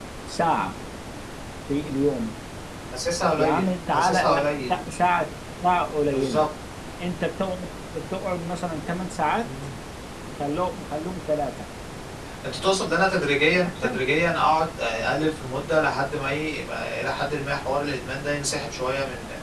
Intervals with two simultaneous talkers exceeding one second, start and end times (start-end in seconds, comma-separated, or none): 3.4-4.8